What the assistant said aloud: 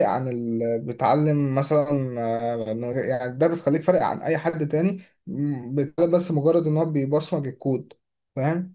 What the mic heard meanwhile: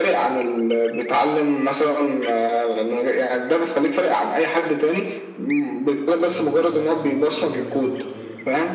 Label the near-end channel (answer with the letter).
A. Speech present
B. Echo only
A